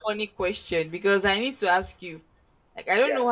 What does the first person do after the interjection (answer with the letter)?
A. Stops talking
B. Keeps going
B